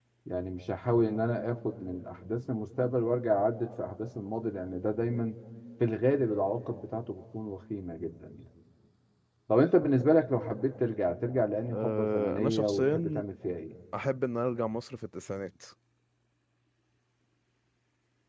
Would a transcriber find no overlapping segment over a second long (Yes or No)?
No